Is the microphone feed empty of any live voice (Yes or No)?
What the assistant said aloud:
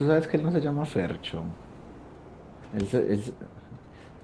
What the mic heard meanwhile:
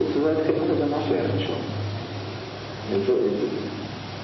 Yes